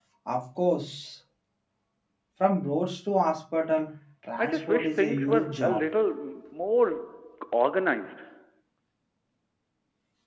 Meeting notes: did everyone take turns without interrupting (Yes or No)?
No